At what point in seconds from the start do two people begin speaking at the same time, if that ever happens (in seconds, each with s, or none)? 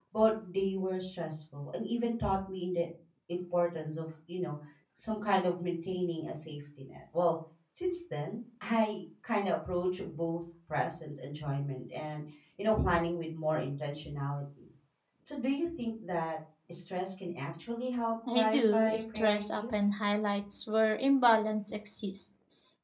18.3 s